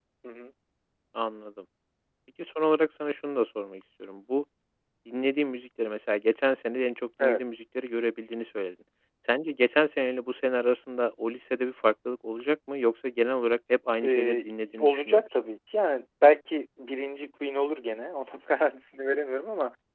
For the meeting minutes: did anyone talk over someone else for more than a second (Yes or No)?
Yes